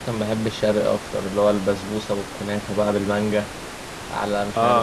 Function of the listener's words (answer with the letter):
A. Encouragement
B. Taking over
B